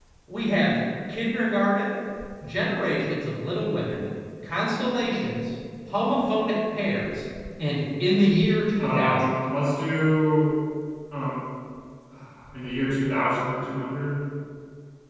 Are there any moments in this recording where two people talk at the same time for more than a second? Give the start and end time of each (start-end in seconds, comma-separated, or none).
none